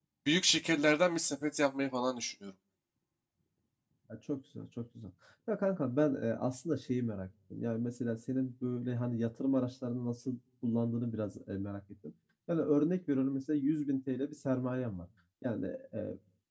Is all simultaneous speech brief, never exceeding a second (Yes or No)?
Yes